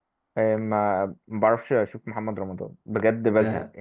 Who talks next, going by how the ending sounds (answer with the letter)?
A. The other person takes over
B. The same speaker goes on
A